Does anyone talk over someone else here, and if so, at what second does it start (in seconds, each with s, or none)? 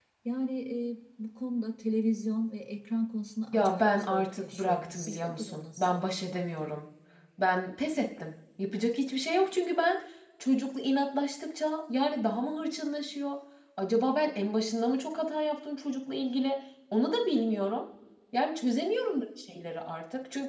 3.5 s